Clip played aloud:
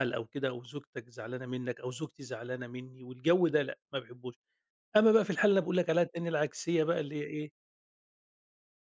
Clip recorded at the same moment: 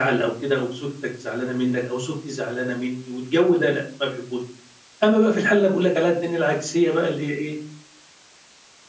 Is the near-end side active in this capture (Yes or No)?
No